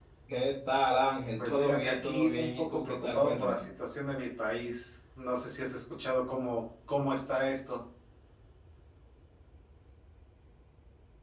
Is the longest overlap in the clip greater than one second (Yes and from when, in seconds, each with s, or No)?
Yes, from 1.4 s